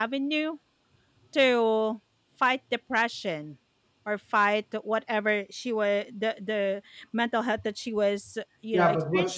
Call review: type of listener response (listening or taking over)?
taking over